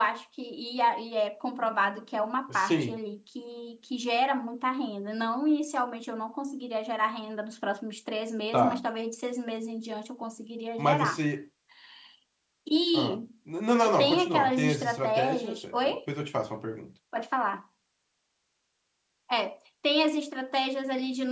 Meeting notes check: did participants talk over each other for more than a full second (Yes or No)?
Yes